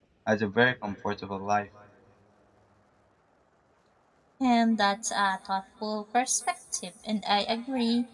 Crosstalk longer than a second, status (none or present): none